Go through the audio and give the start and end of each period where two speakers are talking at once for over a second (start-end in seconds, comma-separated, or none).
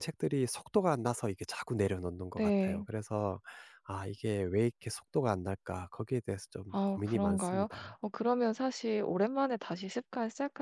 6.7-7.9